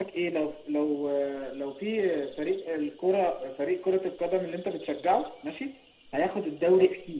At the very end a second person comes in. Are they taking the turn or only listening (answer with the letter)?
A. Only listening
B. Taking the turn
A